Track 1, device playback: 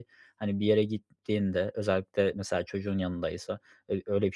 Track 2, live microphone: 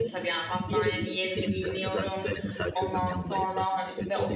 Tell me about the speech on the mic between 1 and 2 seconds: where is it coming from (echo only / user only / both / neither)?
both